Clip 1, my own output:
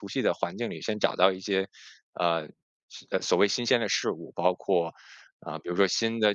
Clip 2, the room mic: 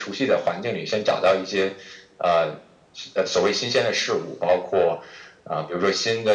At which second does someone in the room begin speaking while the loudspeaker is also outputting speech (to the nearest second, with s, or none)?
none